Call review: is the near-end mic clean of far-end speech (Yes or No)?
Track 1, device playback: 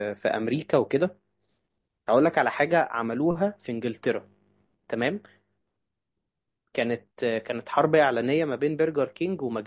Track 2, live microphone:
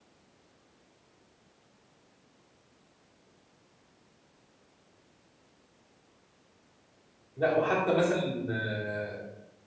Yes